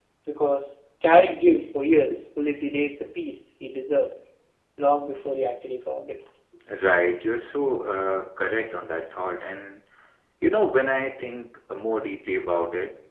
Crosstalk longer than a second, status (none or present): none